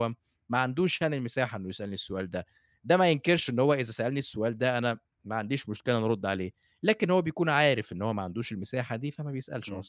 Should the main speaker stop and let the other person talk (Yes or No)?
Yes